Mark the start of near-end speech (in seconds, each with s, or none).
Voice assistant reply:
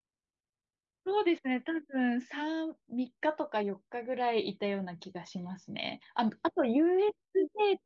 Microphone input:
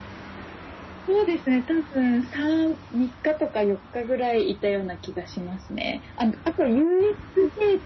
none